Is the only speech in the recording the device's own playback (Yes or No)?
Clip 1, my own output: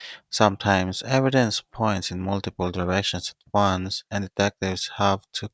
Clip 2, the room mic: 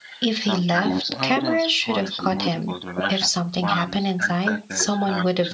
No